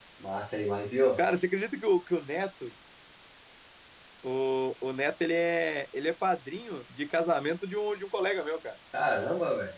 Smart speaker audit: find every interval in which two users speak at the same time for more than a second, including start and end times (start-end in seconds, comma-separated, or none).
none